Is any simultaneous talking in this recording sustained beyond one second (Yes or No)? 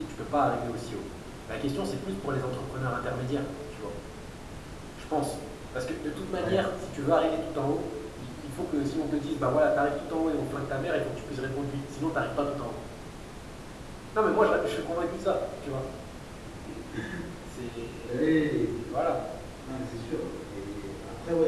No